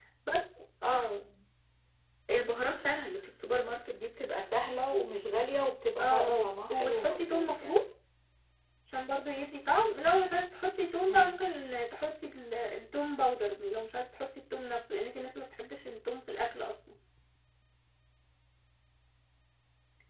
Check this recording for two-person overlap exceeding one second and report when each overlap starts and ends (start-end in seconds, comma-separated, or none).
6.0-7.8